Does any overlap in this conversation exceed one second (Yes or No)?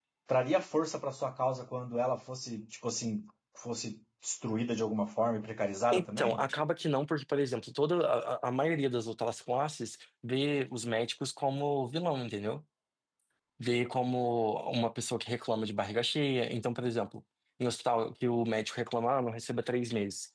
No